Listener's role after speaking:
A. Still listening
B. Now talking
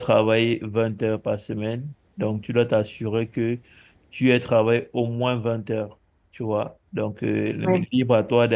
A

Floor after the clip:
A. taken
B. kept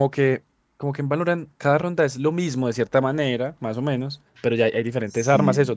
B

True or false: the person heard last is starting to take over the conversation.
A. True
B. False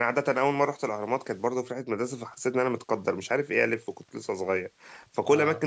B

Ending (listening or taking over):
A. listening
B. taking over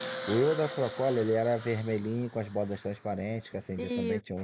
A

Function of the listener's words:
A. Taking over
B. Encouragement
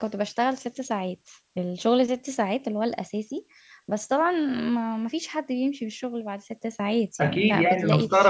A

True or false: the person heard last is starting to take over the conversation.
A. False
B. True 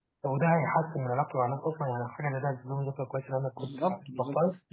B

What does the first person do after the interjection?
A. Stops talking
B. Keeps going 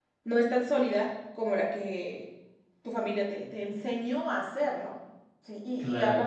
B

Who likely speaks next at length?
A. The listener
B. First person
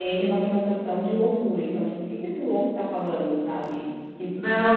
A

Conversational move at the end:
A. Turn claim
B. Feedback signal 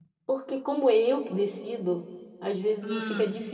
B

